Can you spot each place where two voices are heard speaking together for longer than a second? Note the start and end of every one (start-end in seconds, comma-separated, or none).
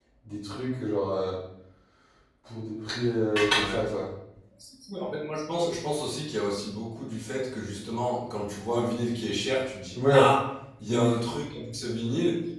none